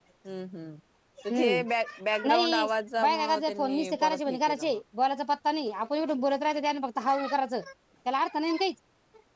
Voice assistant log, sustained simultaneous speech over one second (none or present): present